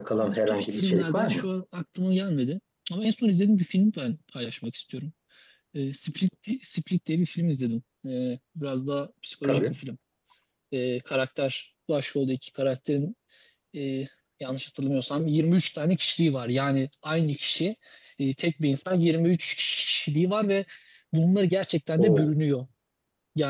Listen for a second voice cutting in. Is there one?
Yes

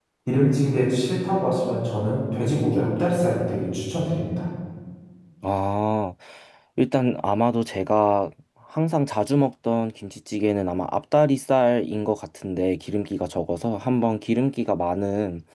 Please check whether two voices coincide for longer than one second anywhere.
No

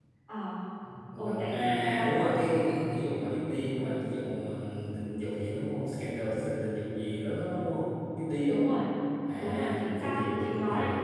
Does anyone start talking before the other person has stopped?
Yes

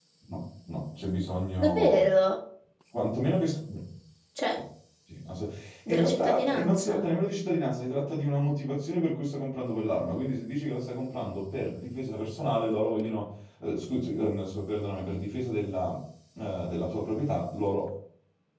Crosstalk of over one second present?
Yes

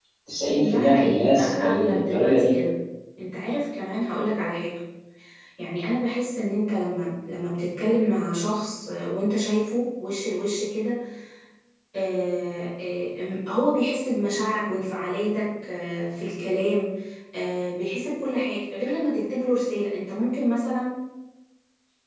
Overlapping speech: Yes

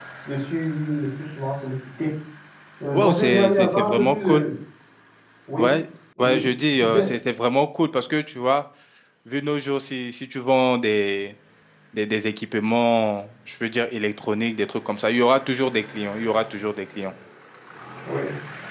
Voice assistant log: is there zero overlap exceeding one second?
No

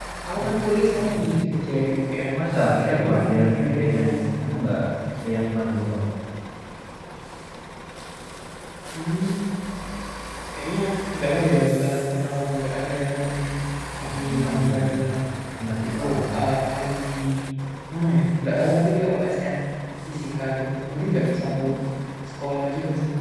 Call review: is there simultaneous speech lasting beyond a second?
Yes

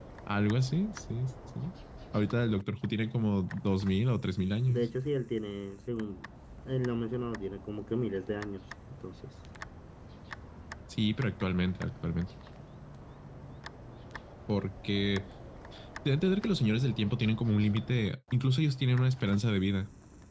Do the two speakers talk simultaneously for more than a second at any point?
No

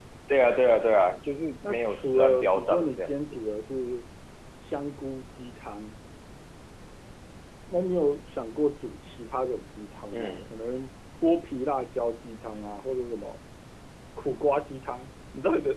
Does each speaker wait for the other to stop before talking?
No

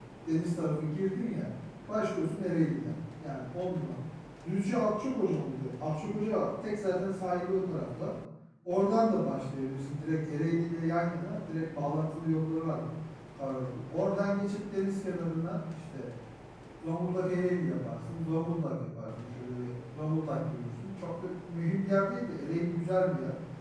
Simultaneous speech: No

